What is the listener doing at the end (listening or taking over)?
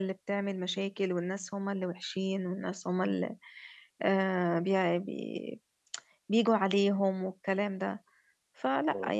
taking over